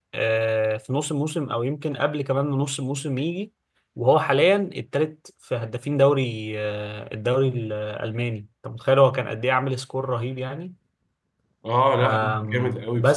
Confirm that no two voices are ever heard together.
No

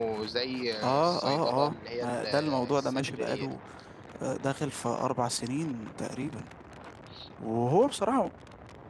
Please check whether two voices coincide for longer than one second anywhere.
Yes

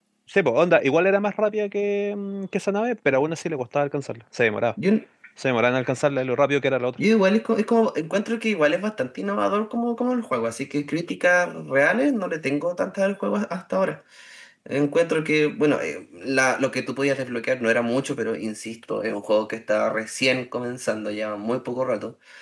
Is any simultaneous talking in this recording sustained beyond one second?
No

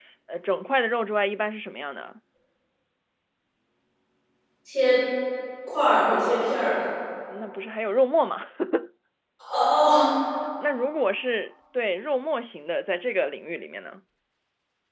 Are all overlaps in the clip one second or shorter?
Yes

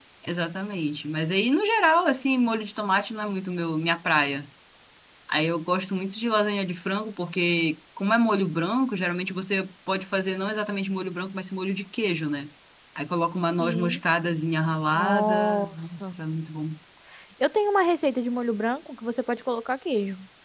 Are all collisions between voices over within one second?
No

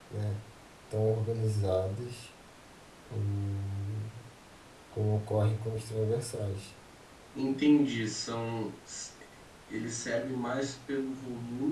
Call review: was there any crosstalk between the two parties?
No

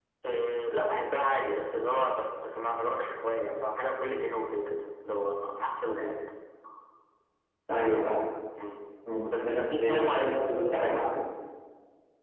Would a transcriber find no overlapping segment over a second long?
No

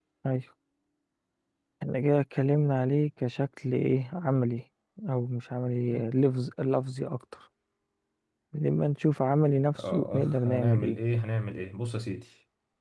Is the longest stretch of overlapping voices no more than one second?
No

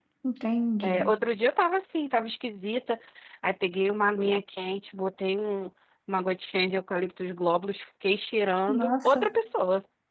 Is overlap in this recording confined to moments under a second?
Yes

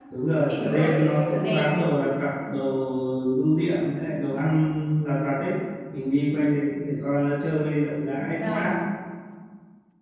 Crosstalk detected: Yes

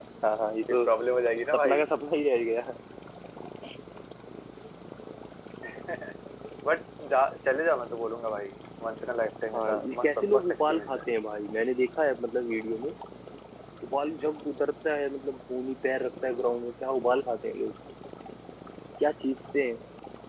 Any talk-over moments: Yes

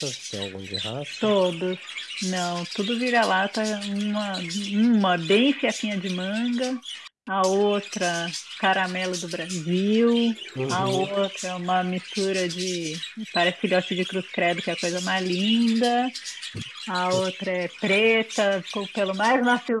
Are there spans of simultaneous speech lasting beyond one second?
No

